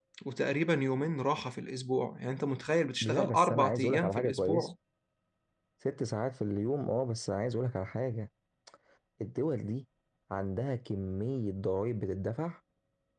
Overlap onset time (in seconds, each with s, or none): 3.0 s